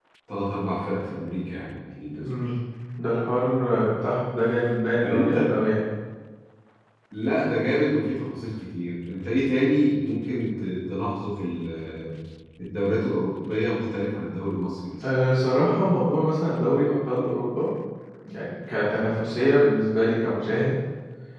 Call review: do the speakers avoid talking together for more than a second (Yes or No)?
Yes